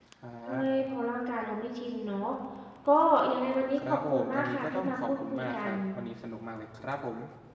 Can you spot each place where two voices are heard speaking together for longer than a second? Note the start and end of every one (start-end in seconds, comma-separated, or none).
3.9-5.8